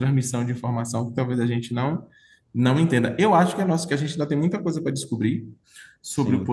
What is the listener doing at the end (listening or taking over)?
listening